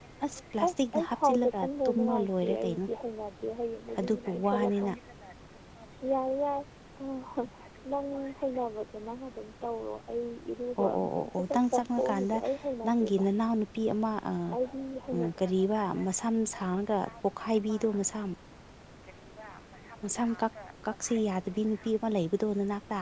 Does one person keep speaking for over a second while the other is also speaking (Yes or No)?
Yes